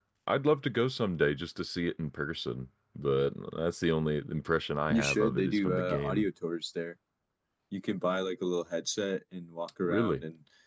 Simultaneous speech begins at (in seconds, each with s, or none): 4.9 s